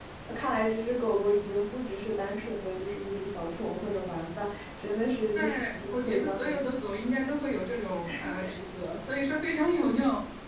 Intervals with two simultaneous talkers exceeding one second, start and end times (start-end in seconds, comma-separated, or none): 5.4-6.6